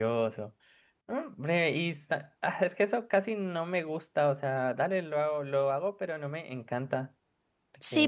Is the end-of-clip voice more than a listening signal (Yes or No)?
Yes